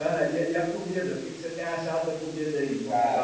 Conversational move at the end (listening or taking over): taking over